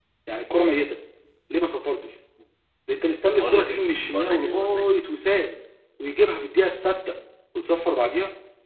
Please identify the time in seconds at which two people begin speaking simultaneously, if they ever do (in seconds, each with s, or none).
3.3 s